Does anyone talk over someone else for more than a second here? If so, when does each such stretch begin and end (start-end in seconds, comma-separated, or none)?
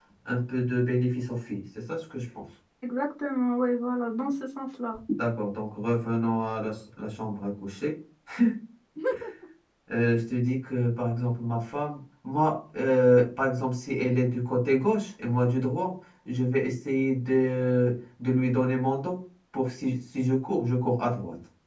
none